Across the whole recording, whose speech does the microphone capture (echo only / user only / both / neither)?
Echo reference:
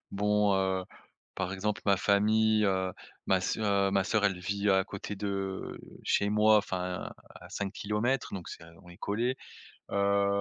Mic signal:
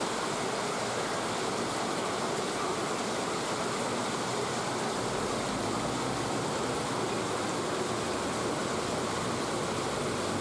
neither